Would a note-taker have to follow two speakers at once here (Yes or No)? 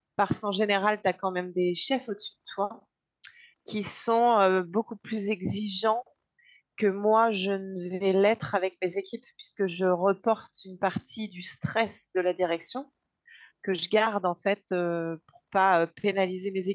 No